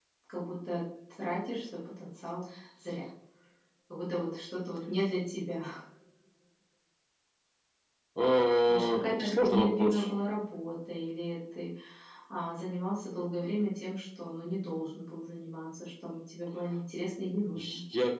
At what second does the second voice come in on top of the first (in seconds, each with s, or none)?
8.7 s